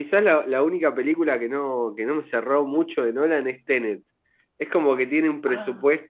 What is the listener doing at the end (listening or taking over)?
listening